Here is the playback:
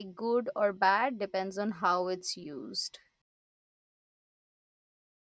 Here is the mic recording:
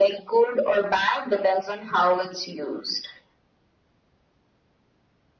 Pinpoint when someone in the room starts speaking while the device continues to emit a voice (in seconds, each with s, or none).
none